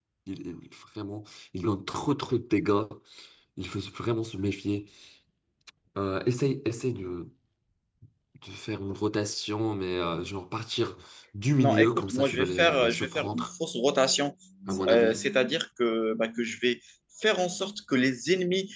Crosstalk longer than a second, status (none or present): present